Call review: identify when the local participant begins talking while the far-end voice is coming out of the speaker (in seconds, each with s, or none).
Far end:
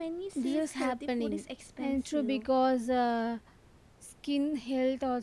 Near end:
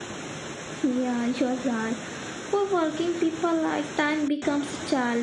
0.8 s